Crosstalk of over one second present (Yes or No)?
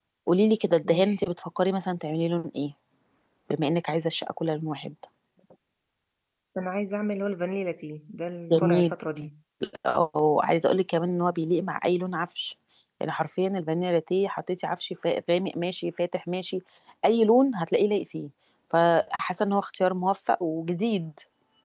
No